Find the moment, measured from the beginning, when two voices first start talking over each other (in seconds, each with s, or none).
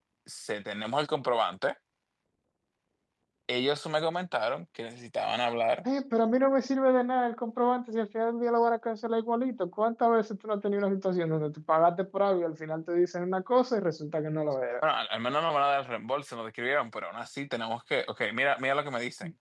none